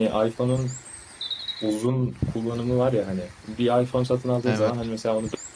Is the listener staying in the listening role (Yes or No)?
Yes